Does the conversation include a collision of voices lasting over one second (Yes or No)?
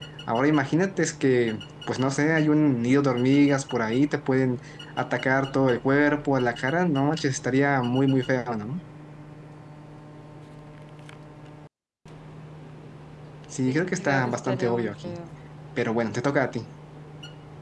Yes